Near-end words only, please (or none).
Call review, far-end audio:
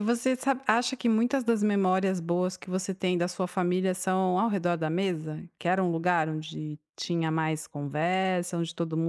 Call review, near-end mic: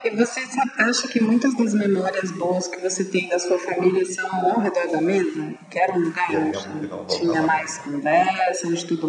E é tempo que não volta mais, né.